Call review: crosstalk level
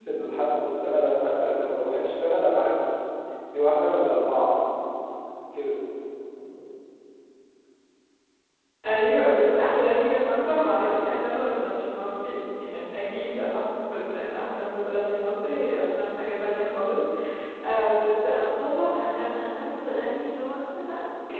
none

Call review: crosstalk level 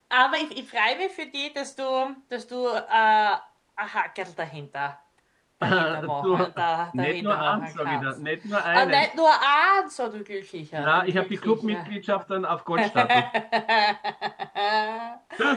present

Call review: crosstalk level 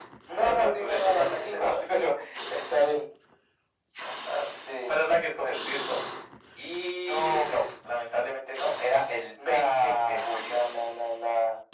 present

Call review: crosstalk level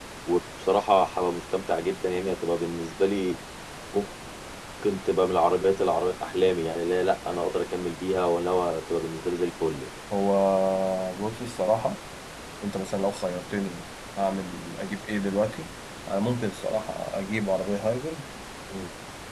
none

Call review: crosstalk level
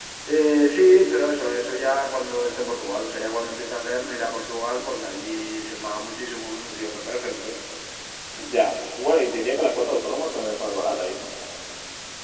none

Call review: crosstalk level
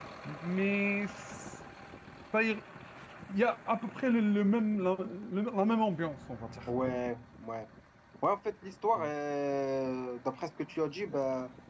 none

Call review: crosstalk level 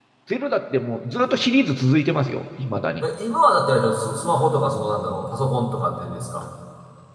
none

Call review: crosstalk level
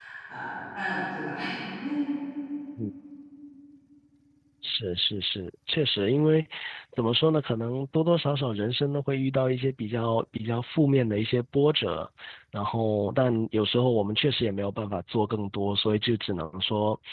none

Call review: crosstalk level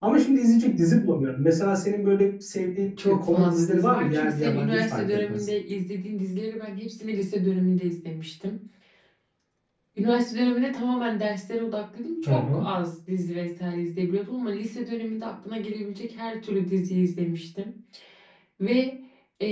present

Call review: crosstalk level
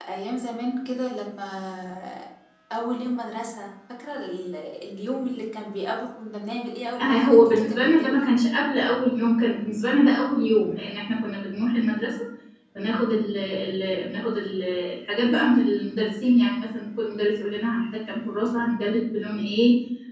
present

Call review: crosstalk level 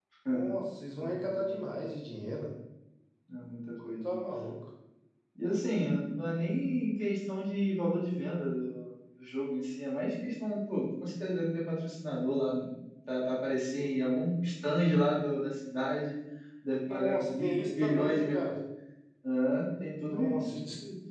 present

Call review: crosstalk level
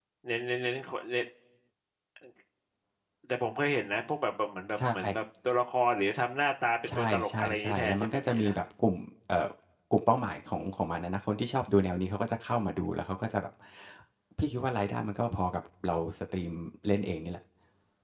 present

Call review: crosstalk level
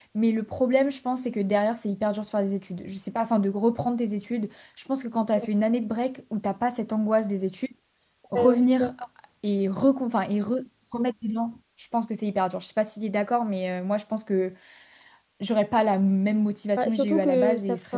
present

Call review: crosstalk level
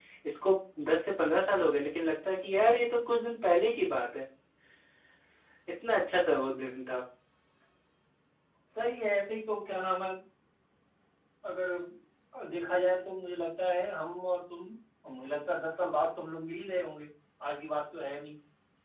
none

